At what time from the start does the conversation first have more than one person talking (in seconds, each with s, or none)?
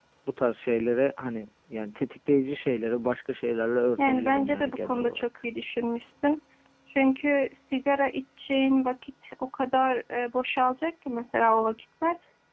4.0 s